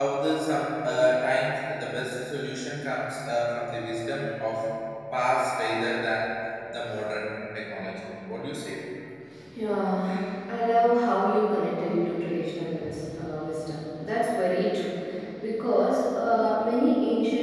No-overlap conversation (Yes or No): Yes